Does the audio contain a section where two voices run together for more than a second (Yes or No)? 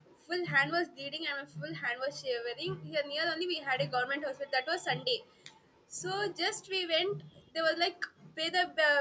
No